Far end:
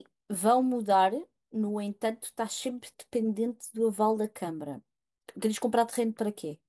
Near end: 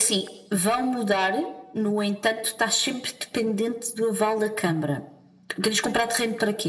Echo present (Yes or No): Yes